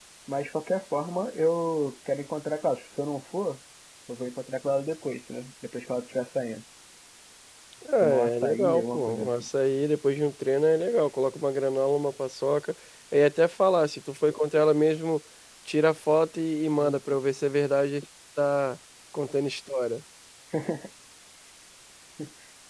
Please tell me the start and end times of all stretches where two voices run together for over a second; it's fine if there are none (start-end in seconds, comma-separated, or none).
8.0-9.4